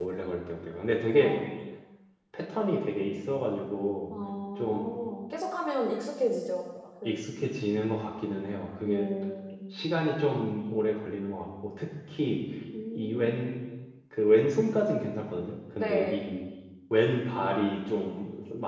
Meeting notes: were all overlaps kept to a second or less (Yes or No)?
Yes